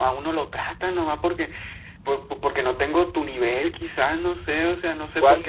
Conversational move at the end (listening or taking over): taking over